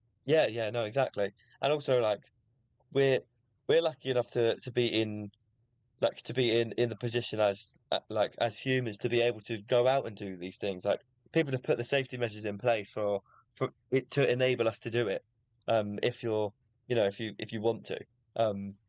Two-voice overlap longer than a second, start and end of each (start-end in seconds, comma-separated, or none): none